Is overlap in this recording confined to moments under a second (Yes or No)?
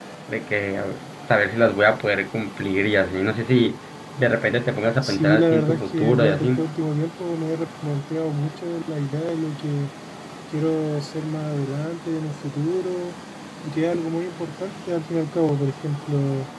No